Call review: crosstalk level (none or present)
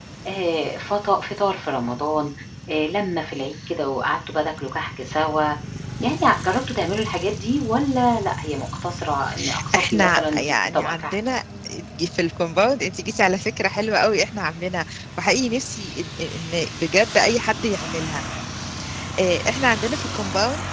present